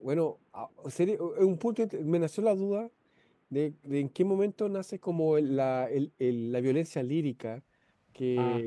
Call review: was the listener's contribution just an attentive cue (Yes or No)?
Yes